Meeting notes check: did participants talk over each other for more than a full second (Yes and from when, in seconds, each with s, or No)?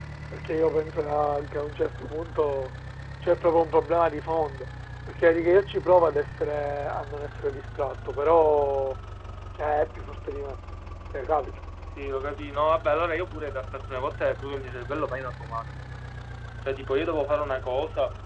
No